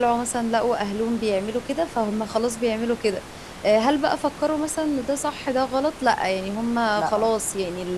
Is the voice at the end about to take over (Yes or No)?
No